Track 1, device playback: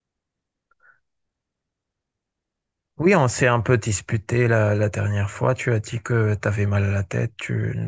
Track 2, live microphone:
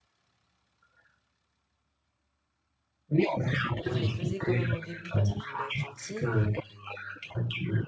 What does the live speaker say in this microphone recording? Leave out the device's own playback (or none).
mais je les faisais quand même au début parce que je voulais être gentille.